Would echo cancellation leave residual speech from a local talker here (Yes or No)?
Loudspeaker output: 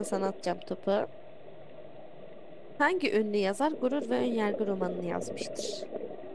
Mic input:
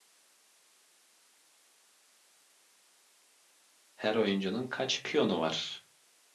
Yes